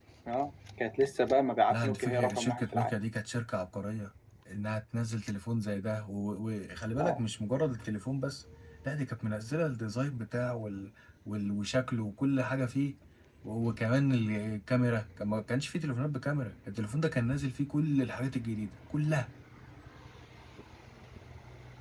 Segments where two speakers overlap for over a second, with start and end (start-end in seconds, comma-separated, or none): 1.7-3.0